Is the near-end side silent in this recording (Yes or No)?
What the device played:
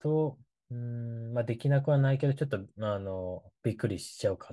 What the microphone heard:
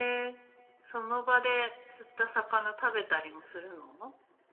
No